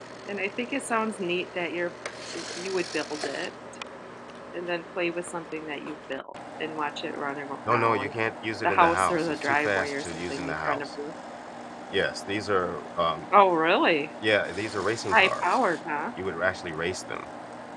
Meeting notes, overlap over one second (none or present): present